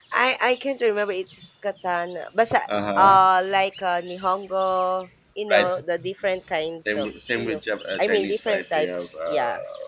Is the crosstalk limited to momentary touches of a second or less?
No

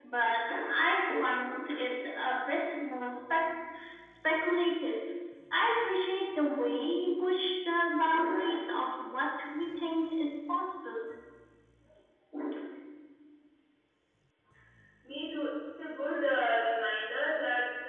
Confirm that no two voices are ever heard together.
Yes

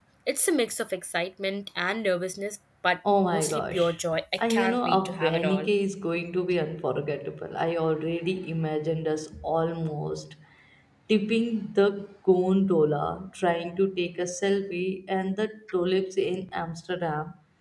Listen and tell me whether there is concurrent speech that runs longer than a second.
Yes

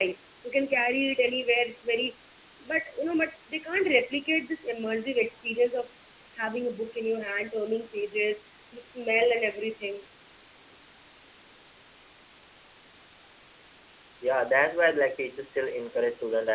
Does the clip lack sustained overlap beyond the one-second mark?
Yes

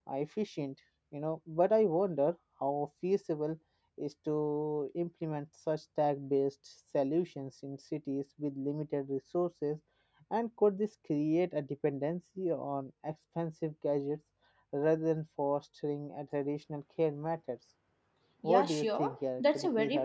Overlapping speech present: Yes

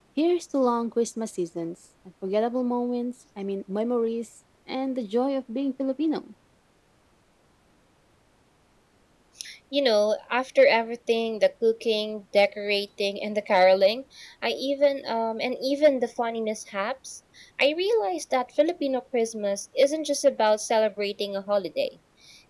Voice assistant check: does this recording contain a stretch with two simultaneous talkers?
No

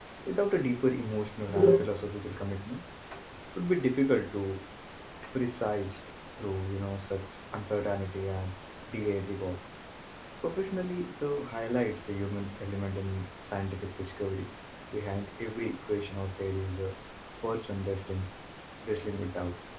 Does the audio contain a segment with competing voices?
No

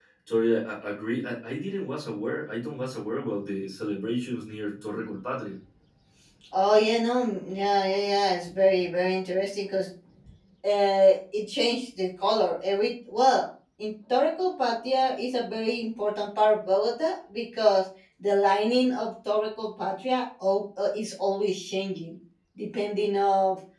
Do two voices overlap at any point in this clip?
No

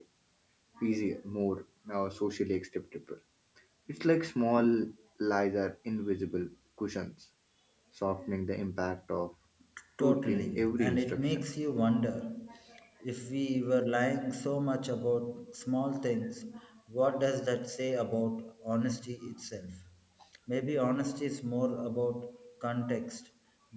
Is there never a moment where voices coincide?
No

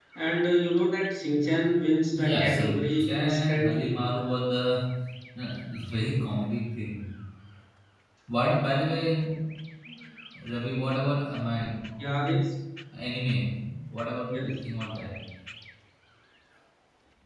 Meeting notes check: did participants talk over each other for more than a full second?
Yes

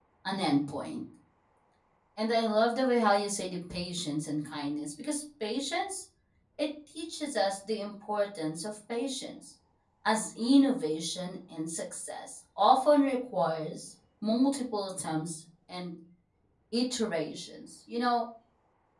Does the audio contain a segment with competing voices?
No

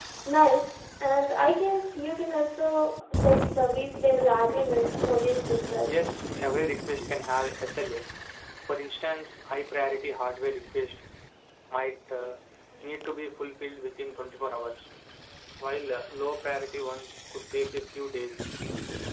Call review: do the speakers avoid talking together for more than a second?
Yes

